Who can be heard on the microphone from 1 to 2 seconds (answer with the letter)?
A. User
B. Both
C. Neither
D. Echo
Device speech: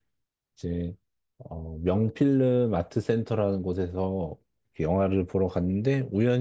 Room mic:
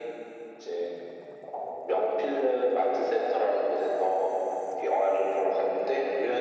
D